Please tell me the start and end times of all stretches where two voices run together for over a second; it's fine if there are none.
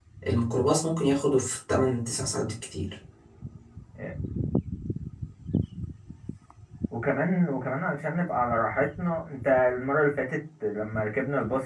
none

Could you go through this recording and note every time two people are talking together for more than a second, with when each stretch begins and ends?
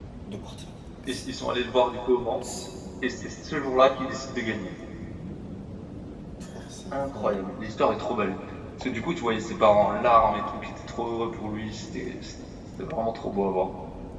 none

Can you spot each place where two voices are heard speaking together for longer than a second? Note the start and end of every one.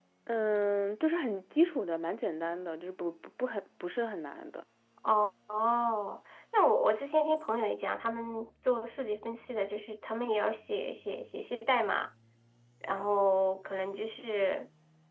none

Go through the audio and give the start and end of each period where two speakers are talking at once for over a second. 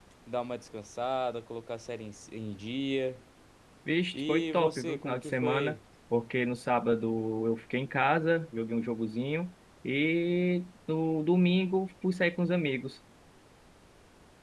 4.1-5.8

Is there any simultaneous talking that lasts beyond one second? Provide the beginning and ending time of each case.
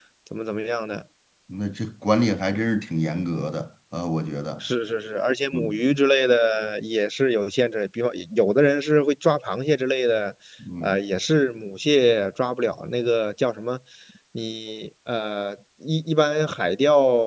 none

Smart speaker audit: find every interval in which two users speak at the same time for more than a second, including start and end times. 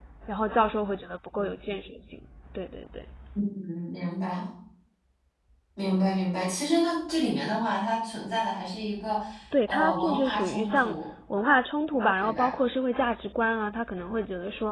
9.7-11.0

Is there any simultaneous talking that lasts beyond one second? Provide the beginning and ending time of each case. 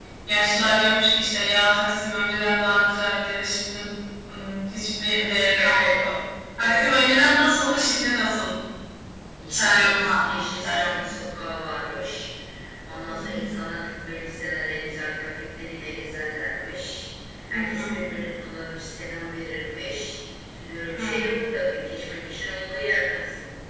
9.5-11.1

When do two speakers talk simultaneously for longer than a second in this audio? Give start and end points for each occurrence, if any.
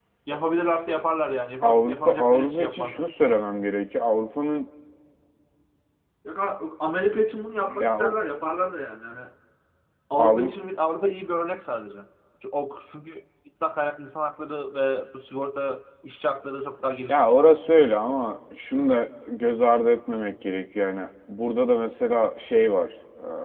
1.6-3.1

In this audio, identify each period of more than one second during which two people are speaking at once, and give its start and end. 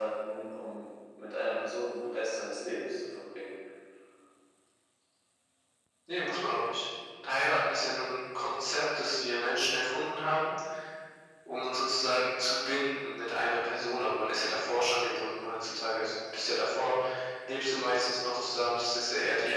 none

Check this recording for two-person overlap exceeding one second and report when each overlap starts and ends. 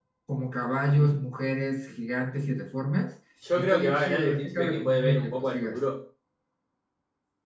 3.6-5.8

